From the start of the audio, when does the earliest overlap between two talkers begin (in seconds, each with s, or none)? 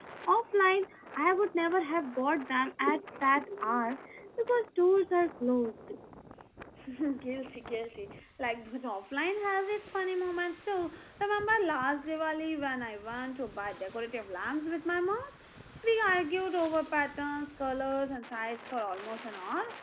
none